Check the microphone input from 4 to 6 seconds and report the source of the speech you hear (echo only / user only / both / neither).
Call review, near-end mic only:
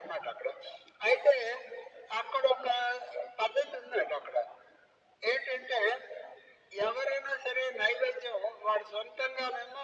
echo only